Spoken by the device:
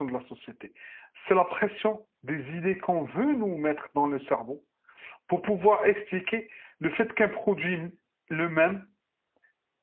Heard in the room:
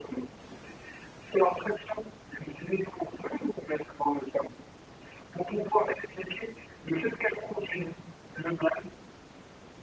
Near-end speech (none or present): none